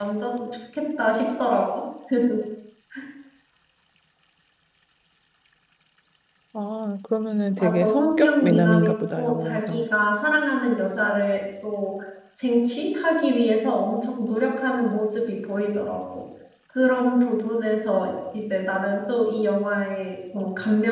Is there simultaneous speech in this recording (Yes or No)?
Yes